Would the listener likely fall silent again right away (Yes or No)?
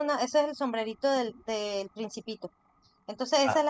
Yes